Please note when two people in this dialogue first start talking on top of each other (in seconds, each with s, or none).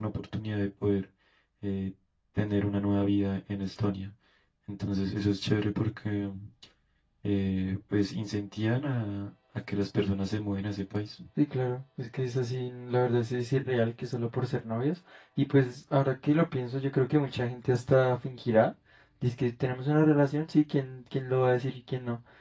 none